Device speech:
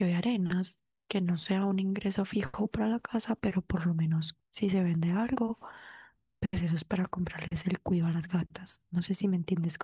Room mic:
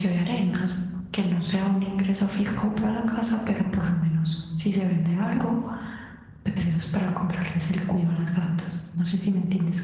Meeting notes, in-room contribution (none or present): none